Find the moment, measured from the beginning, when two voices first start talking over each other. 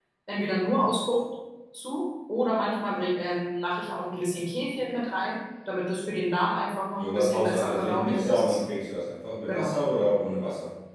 7.0 s

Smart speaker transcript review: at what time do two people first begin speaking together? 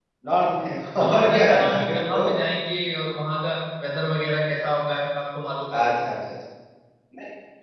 1.0 s

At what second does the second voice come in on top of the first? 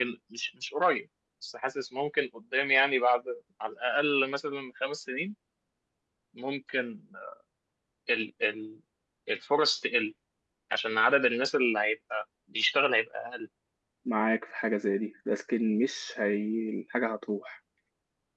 none

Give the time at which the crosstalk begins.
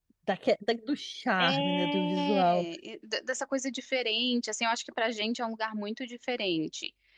1.4 s

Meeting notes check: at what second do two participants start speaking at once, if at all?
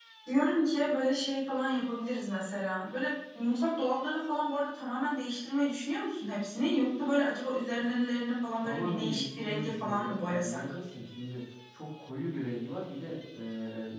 8.6 s

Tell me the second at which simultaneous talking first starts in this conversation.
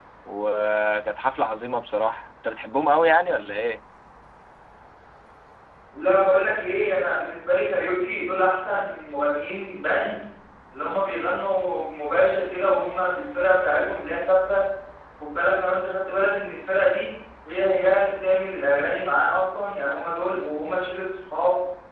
none

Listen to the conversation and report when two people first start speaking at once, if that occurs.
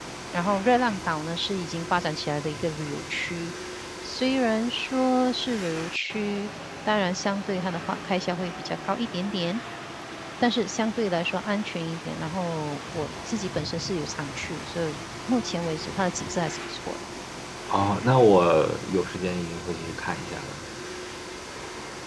none

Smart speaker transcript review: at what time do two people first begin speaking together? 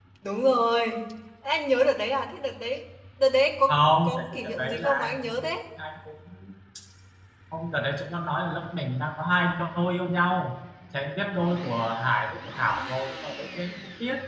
3.7 s

